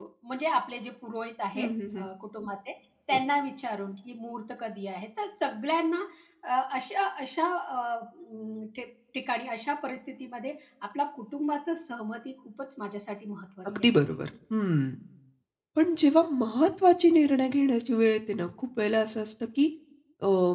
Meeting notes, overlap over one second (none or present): none